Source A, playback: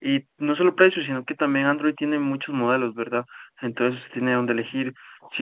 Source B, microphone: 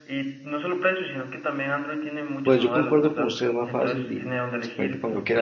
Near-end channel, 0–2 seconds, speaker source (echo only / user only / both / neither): echo only